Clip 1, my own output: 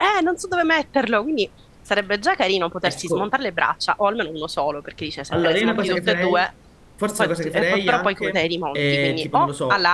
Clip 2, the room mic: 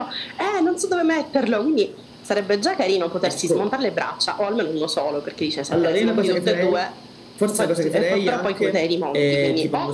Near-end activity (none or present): none